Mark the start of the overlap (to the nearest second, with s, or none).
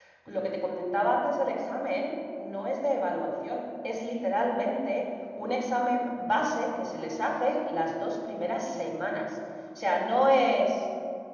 none